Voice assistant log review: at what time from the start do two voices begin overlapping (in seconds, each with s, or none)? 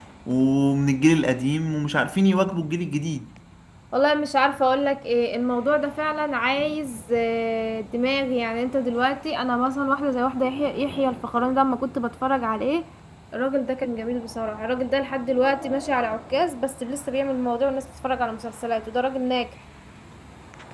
none